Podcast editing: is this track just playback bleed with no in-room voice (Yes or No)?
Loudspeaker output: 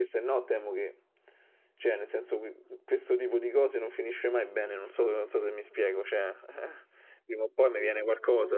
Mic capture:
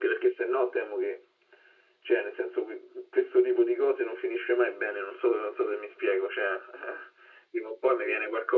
Yes